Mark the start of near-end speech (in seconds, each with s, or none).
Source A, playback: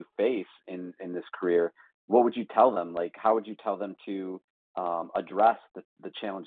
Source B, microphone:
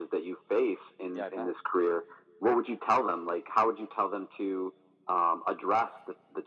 1.1 s